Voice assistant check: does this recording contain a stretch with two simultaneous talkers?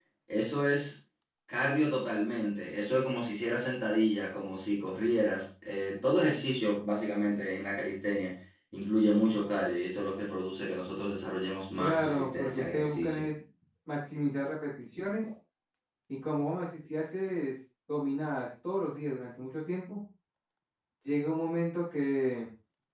Yes, from 11.8 s

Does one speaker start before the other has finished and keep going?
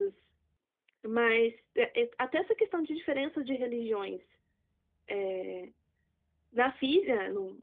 No

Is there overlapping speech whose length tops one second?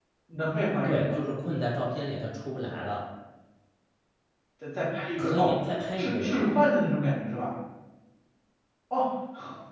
No

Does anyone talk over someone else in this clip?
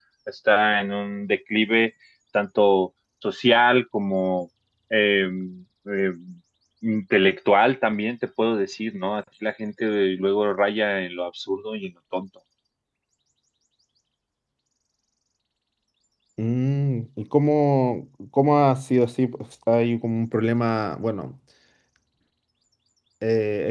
No

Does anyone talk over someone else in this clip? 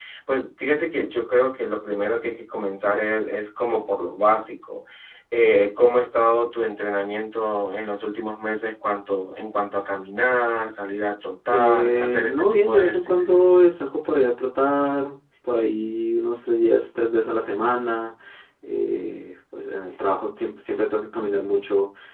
Yes, from 11.5 s

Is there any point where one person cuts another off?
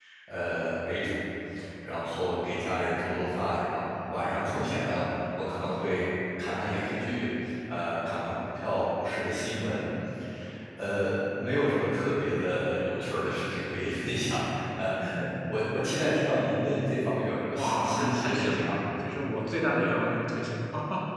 Yes, from 17.5 s

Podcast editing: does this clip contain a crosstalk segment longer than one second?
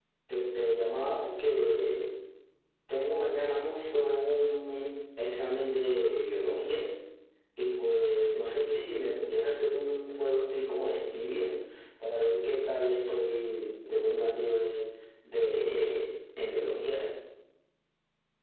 No

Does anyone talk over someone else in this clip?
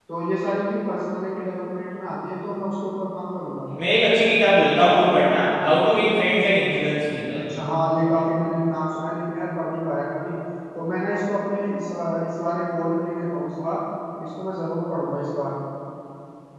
No

